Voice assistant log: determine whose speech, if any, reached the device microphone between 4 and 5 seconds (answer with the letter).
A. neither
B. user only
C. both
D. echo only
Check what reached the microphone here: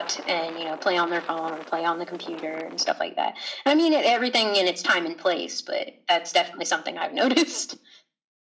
D